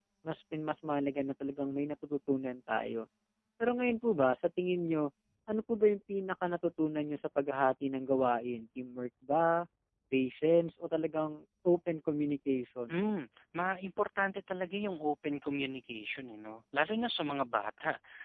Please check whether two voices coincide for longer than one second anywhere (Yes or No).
No